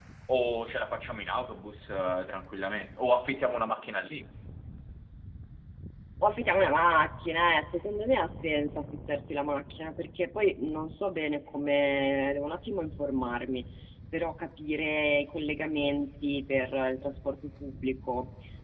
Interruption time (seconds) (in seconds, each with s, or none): none